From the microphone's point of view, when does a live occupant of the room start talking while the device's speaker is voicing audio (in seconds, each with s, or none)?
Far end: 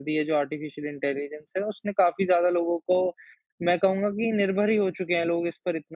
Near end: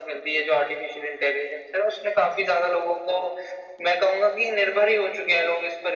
none